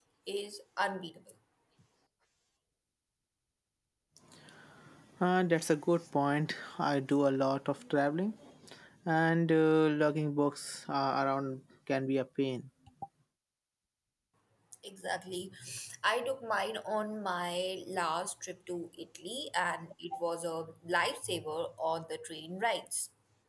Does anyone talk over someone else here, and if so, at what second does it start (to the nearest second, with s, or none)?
none